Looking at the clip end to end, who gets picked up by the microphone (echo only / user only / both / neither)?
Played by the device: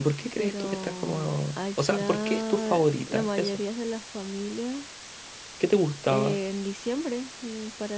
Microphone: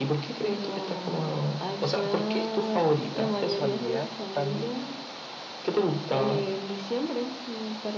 both